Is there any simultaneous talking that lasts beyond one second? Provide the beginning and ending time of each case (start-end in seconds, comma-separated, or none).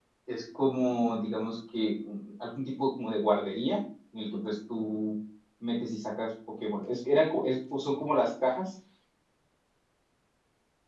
none